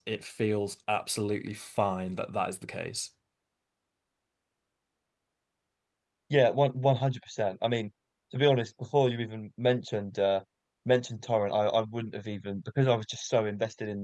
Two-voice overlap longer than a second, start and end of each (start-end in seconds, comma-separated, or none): none